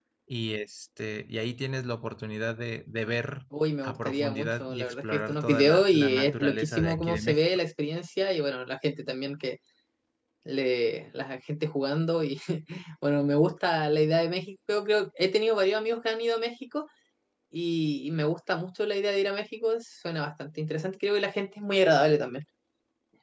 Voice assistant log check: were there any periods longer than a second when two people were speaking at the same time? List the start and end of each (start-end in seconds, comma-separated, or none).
3.8-7.4